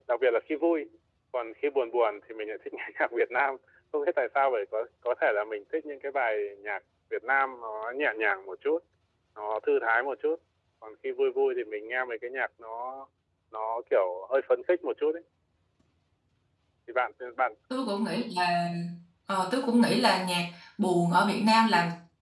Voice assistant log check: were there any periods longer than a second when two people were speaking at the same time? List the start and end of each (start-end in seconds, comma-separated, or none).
none